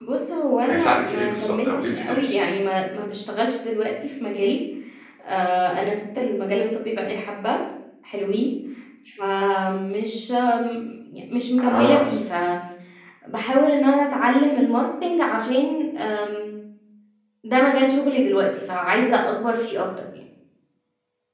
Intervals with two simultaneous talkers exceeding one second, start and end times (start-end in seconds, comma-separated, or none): 0.7-2.4